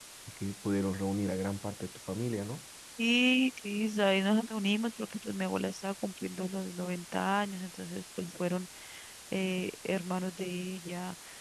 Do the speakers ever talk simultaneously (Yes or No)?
No